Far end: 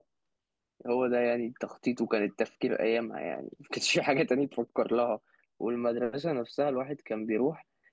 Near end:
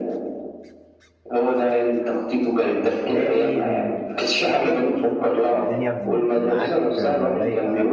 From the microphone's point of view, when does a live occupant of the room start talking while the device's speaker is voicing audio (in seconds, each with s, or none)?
2.8 s